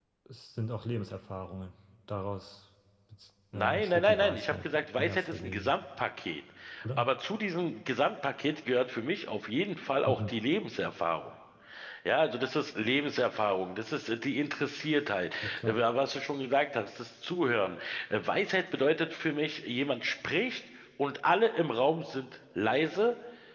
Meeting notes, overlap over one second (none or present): present